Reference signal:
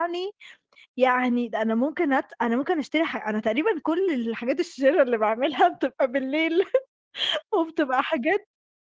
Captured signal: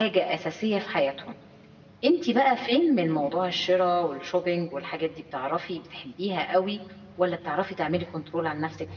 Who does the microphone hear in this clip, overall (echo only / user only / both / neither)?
user only